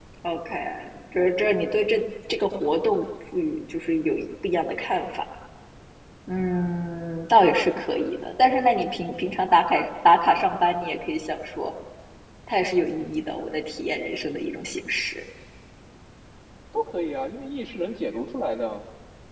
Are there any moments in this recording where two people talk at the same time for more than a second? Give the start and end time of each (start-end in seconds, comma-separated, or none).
none